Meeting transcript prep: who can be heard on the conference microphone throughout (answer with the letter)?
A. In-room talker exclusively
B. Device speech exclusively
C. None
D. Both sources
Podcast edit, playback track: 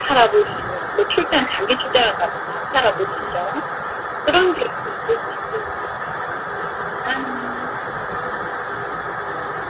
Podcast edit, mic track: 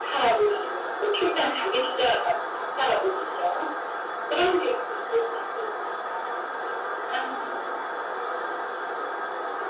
B